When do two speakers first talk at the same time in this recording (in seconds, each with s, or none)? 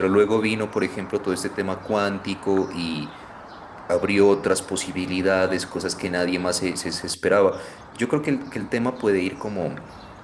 none